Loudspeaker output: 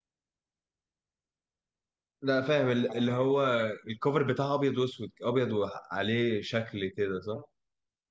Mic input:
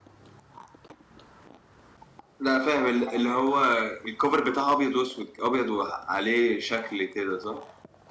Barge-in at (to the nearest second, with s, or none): none